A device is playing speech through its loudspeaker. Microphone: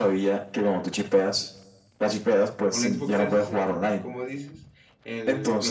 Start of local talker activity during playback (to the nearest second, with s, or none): 3 s